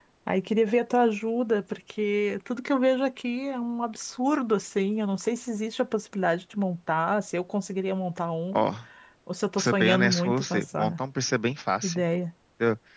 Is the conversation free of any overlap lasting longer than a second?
No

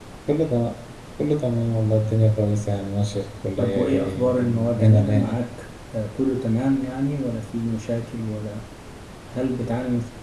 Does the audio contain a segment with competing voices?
Yes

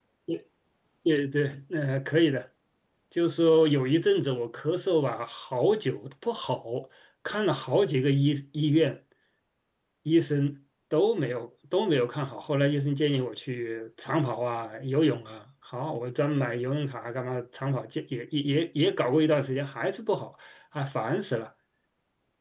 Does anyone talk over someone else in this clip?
No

